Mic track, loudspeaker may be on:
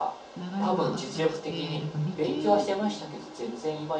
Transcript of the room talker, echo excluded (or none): 流れがあったりして、だから理系